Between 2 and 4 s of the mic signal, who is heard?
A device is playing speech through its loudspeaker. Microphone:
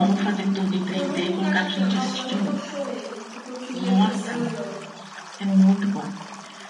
both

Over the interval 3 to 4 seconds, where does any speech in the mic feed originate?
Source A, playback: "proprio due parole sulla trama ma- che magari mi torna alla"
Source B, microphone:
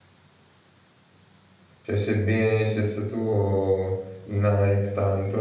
user only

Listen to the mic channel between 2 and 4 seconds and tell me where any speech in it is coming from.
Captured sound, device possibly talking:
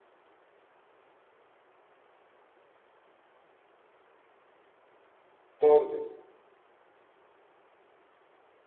neither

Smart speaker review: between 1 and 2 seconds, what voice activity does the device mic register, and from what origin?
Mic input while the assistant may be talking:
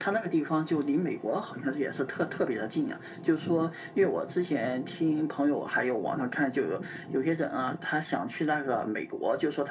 echo only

